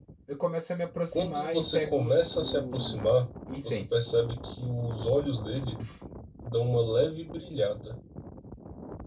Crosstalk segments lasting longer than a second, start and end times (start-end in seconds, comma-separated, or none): 1.1-3.0